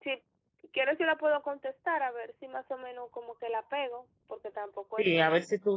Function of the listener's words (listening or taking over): taking over